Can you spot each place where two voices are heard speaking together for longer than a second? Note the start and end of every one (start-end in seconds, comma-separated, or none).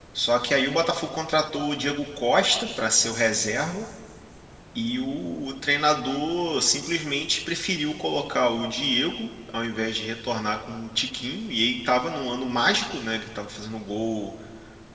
none